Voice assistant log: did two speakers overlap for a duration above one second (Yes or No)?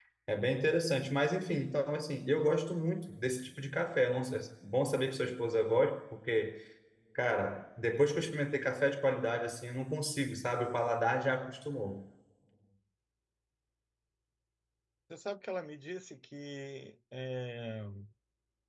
No